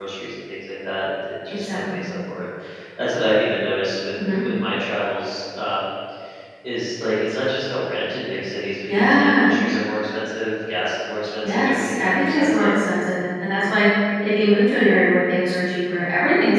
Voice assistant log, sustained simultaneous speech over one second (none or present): present